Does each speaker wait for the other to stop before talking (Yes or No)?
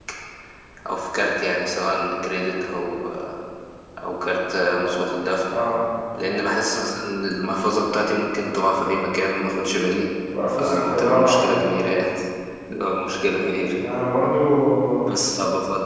No